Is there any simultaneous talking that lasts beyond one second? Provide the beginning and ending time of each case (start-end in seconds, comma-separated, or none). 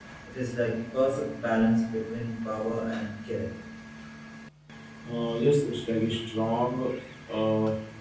none